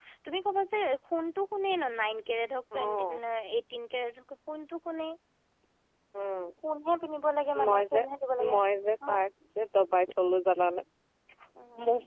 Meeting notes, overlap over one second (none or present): none